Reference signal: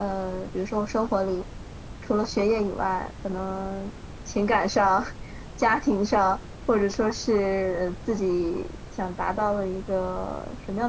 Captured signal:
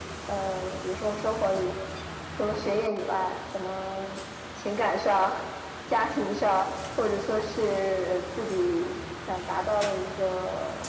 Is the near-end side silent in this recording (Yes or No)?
Yes